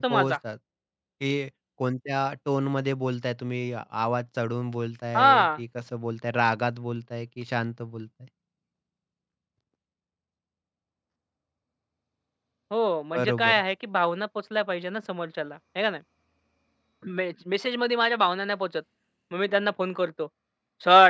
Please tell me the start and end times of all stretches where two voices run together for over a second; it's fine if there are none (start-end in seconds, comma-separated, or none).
none